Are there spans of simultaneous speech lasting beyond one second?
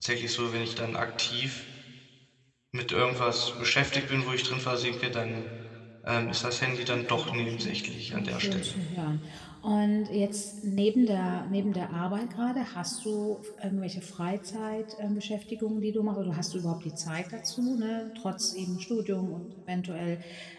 Yes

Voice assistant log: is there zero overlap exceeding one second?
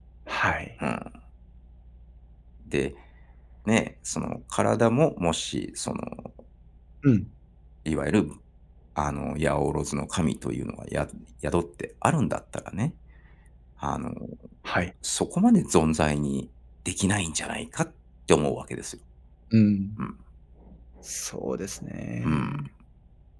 Yes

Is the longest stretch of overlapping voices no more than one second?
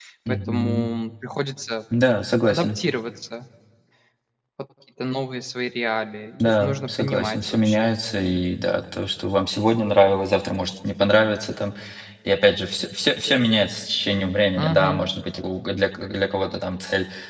No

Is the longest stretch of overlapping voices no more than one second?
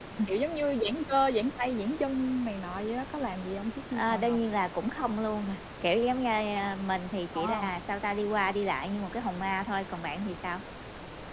Yes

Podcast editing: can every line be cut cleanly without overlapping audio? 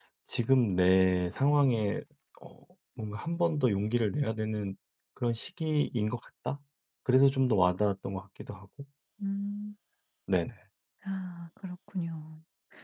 Yes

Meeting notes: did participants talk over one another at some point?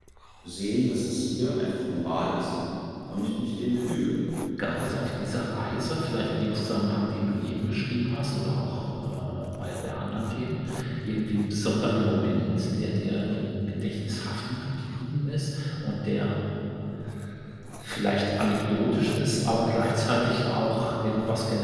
No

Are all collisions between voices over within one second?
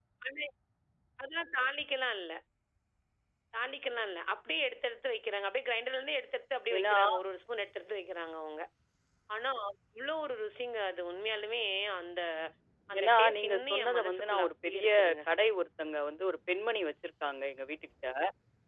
No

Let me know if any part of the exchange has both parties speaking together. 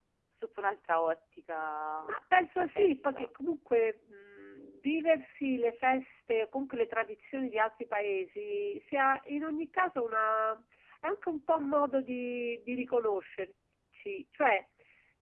Yes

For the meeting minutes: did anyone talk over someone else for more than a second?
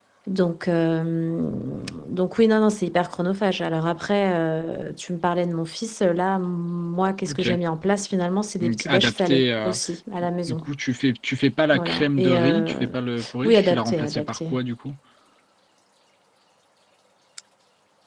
Yes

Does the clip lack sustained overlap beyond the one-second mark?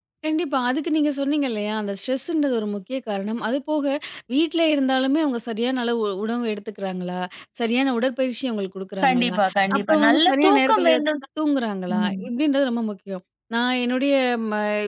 No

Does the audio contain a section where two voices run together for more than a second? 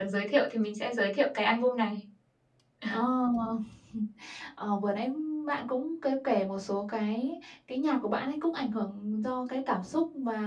No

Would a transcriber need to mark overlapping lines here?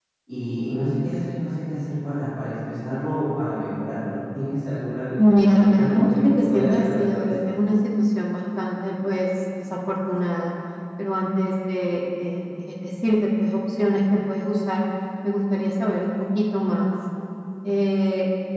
Yes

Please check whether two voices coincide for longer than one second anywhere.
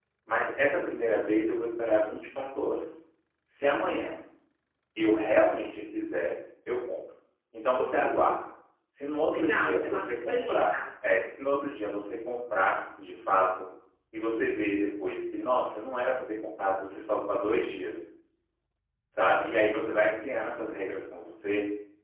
Yes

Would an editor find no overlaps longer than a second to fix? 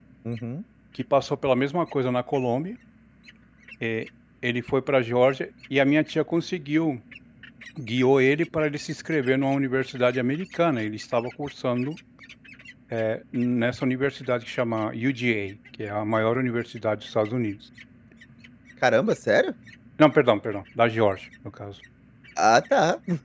Yes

